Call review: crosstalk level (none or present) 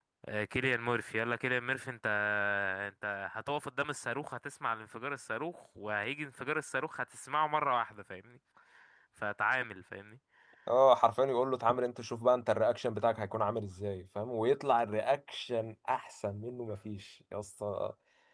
none